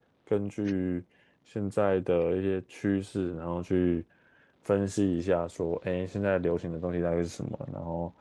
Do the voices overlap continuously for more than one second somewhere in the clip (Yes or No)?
No